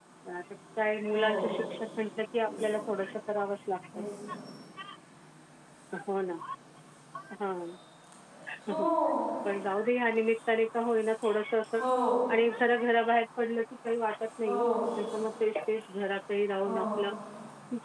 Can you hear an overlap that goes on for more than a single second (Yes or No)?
No